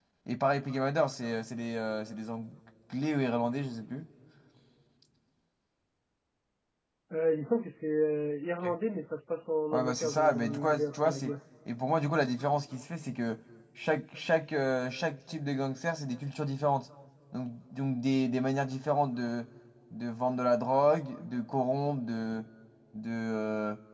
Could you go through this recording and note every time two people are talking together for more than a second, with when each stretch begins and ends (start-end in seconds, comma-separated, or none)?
9.7-11.3